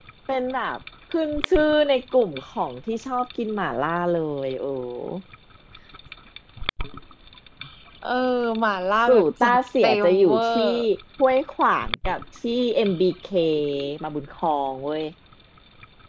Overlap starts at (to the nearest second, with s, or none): 9 s